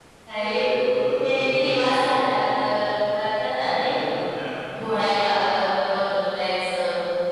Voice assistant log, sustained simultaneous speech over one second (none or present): present